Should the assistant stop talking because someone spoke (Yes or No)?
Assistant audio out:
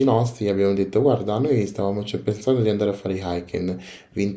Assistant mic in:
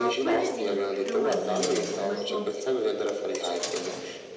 Yes